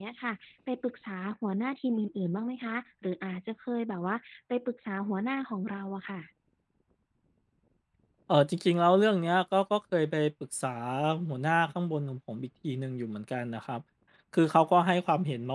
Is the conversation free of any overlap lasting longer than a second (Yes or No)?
Yes